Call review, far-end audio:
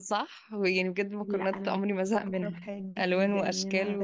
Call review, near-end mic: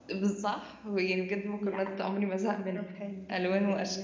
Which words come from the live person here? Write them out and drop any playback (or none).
none